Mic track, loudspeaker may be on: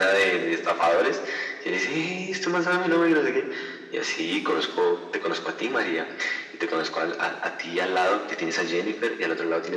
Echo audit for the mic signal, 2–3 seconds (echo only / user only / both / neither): echo only